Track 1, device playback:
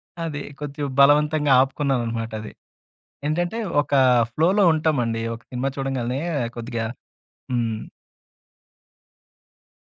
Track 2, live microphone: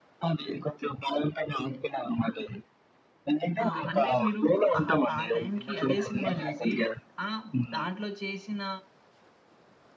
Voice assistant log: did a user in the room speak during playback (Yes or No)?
Yes